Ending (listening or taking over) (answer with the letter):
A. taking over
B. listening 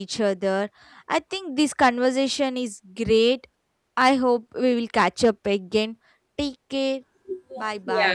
A